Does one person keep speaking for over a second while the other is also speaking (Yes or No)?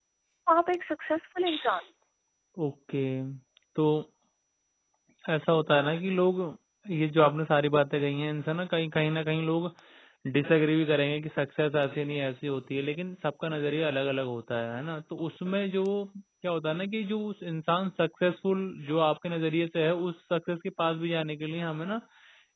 No